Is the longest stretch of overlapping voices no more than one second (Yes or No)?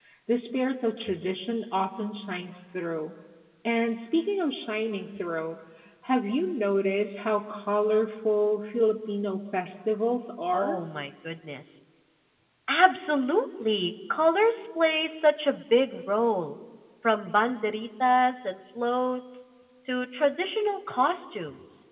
Yes